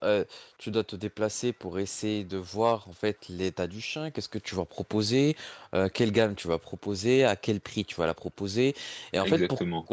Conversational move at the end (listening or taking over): listening